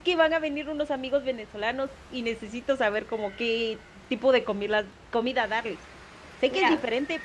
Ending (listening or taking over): listening